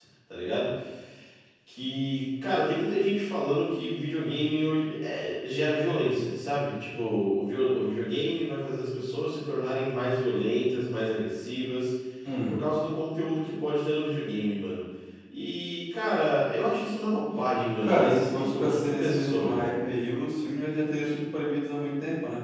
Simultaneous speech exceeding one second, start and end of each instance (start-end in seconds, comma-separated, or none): 17.8-19.7